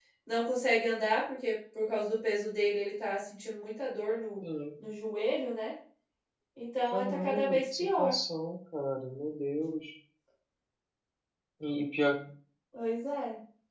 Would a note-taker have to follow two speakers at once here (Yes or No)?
Yes